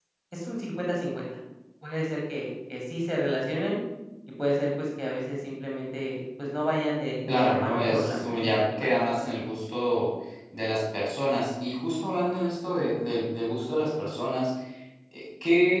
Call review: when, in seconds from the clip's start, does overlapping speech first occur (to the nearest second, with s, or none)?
7 s